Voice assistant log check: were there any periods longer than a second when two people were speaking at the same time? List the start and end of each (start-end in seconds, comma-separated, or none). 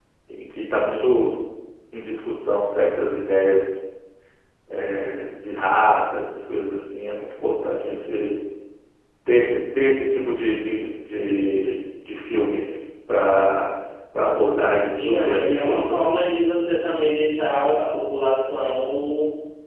15.0-16.2